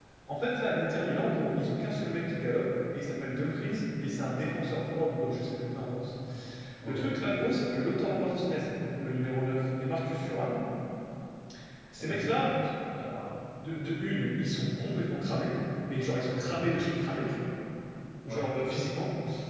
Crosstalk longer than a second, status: none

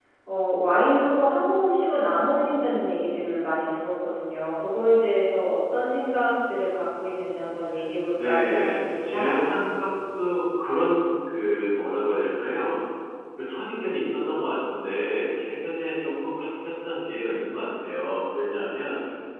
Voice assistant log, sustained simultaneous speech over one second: present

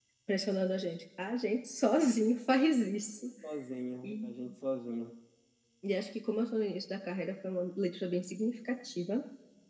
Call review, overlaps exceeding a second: none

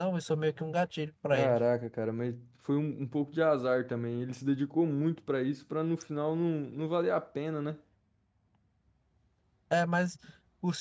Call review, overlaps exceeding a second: none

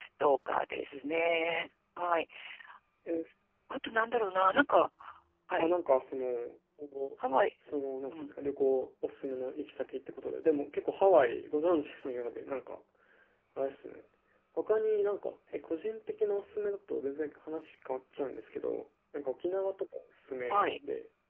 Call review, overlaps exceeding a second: none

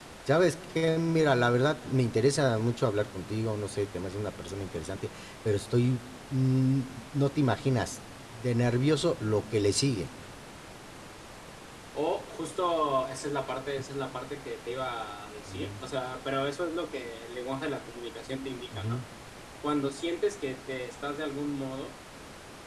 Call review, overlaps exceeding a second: none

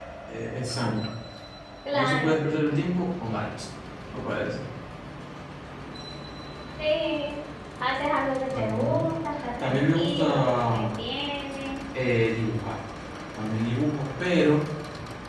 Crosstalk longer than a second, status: present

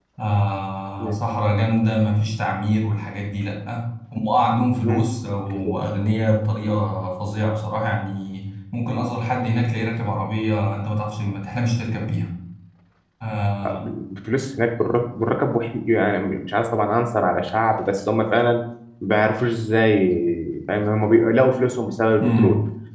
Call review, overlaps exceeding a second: none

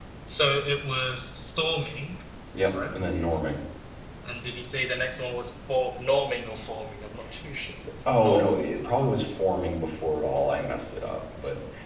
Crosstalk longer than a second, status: none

